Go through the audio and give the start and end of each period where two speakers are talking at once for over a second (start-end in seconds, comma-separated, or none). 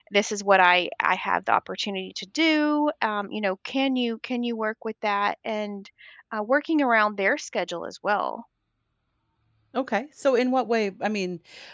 none